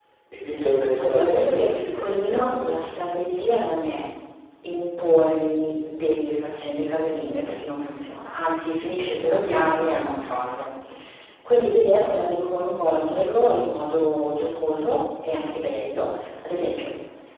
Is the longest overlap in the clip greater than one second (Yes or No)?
Yes